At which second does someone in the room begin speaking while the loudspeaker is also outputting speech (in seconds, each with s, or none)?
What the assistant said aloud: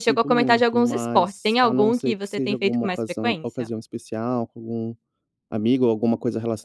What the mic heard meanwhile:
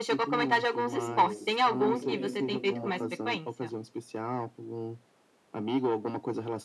0.6 s